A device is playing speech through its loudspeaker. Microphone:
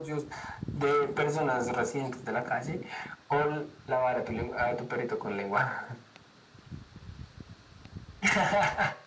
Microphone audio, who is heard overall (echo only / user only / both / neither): echo only